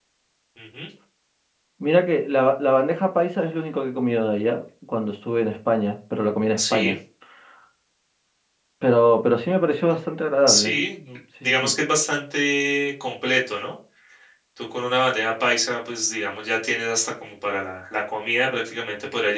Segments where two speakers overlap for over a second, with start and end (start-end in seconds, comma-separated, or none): none